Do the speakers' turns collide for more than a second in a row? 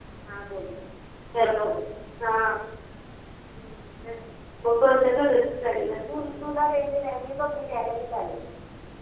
No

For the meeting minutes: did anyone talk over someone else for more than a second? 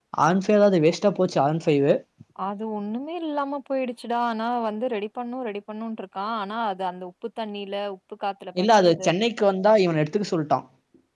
No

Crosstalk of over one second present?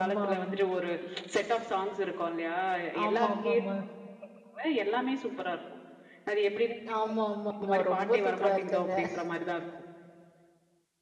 Yes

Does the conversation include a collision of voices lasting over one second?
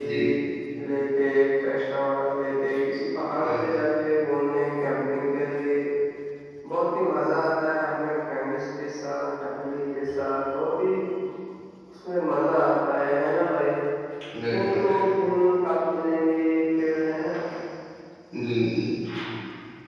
No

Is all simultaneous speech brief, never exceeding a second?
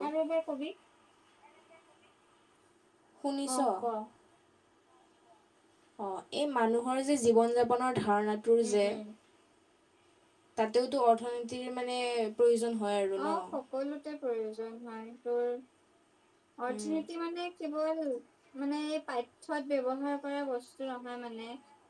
Yes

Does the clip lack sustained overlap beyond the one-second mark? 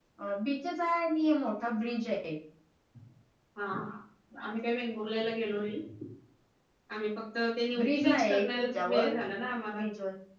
No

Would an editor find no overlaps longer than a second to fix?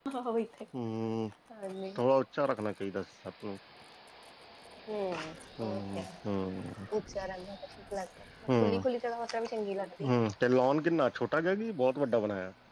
Yes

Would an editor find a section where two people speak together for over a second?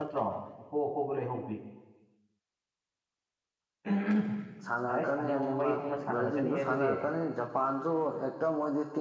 Yes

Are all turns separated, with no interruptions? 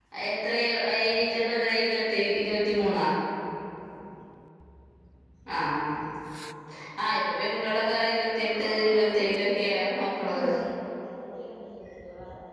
No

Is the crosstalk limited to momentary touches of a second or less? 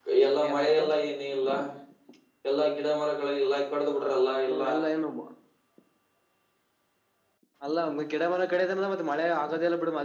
Yes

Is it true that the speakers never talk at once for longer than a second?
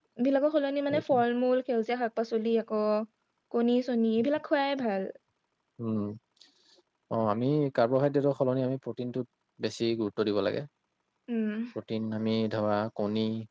Yes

